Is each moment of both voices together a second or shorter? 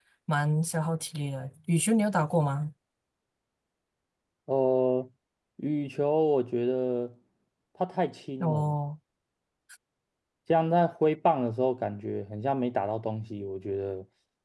Yes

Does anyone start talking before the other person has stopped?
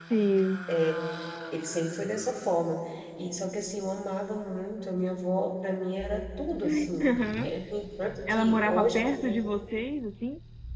Yes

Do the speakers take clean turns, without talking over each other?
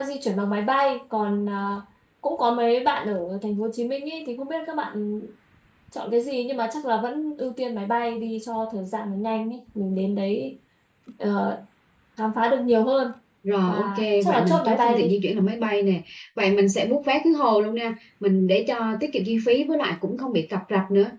No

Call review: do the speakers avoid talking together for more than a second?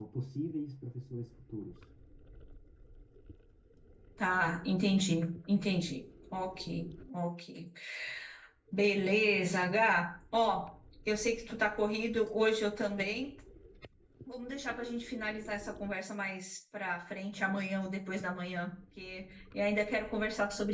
Yes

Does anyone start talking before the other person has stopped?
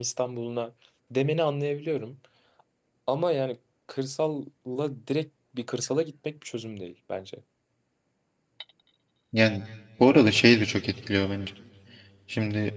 No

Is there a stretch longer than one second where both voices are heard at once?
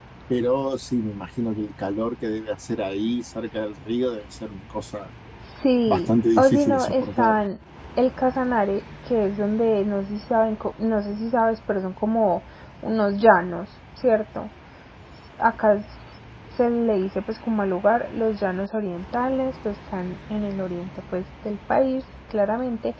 Yes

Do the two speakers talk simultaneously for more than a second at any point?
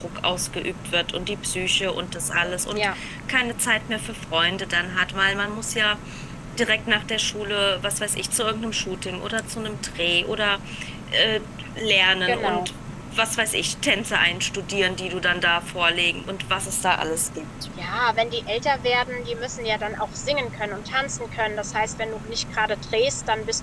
No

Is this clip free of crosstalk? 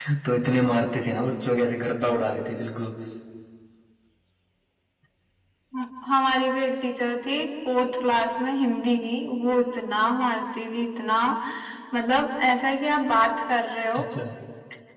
Yes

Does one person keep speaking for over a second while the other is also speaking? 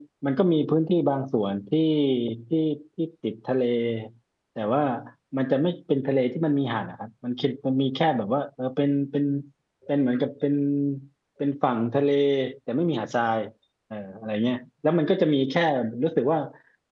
No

